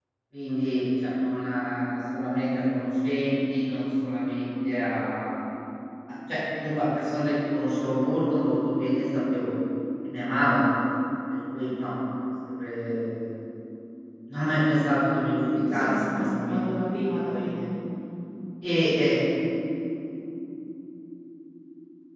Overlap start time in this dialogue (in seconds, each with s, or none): 15.5 s